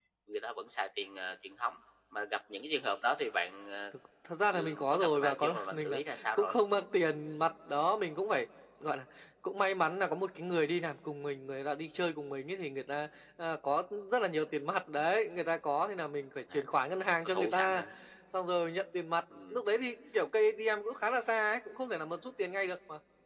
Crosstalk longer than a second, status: present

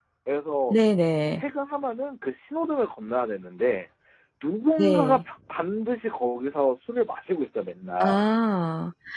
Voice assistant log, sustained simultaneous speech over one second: none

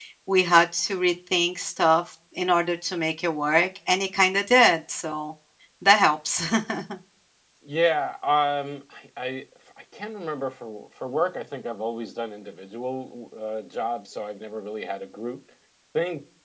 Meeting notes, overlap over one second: none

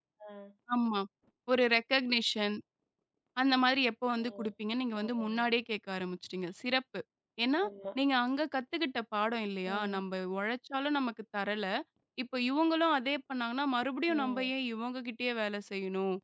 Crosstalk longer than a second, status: none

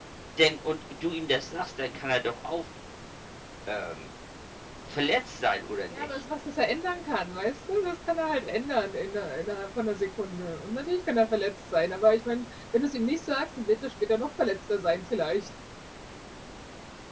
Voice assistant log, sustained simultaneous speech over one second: none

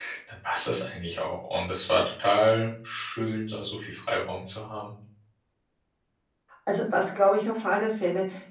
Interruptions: none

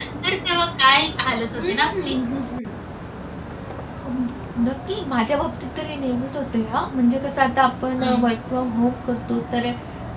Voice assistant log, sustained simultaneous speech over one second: none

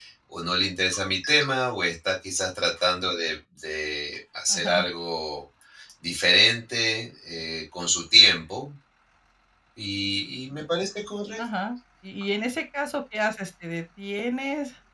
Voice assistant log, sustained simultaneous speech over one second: none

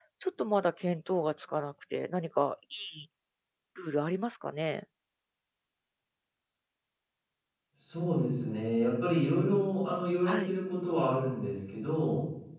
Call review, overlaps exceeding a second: none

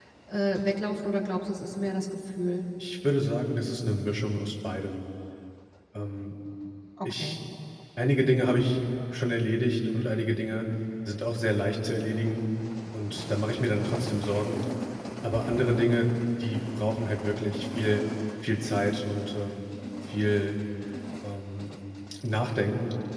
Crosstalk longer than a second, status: none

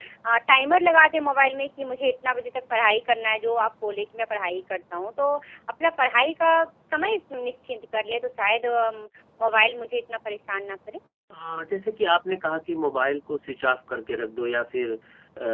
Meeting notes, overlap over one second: none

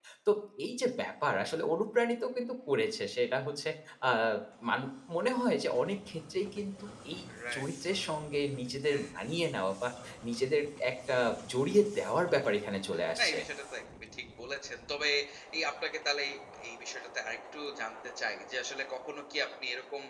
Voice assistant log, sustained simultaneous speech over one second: none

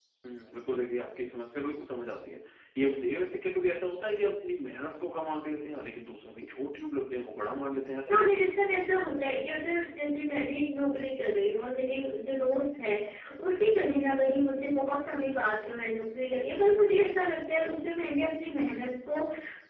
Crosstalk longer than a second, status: none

